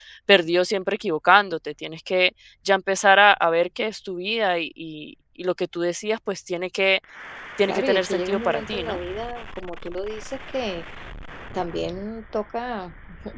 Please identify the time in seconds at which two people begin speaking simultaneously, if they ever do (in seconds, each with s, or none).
7.7 s